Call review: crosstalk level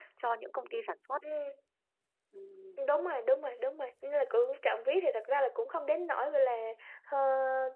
none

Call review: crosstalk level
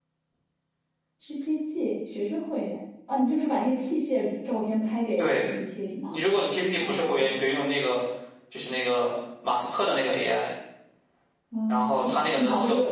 present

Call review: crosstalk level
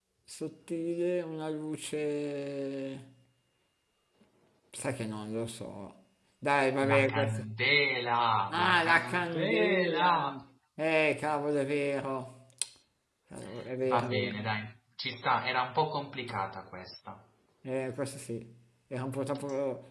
present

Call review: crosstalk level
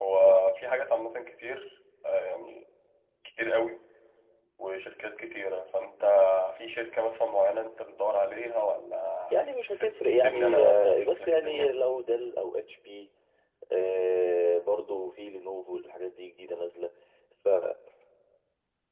present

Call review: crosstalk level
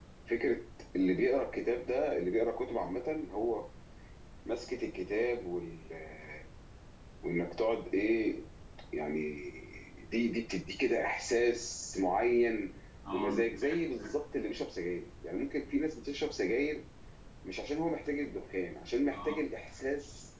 present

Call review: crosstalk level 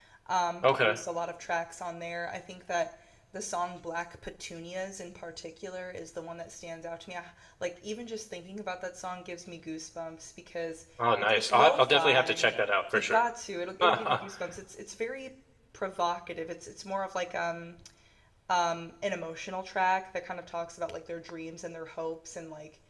present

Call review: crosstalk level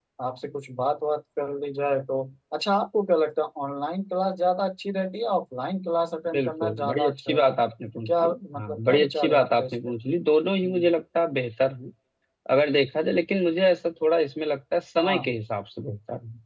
present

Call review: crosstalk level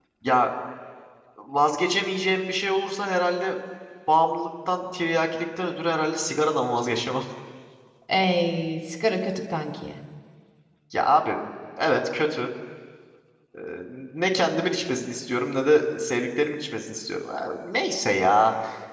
none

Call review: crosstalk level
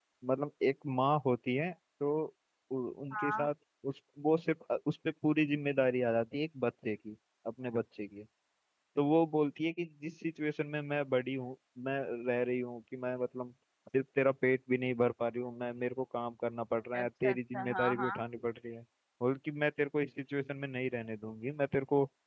present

